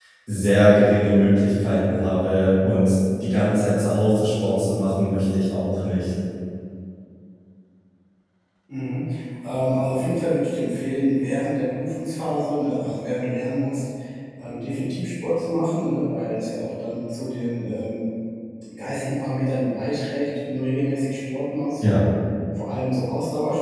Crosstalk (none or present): none